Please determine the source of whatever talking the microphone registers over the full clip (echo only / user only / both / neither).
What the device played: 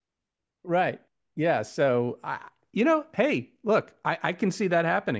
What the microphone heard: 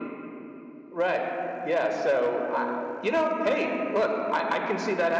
echo only